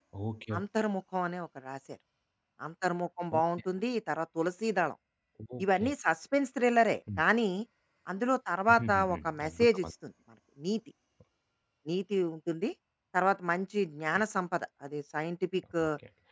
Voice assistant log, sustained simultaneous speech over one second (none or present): present